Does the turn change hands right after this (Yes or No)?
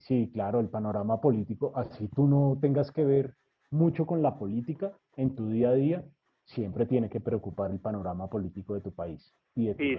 Yes